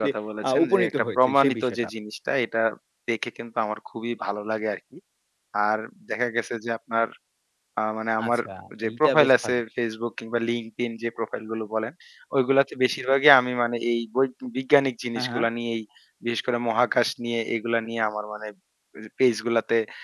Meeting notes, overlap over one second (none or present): present